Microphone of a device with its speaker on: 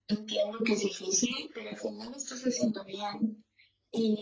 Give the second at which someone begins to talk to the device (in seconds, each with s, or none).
none